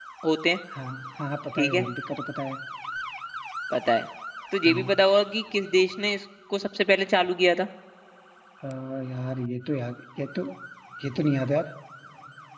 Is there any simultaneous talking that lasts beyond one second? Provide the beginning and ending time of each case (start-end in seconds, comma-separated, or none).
none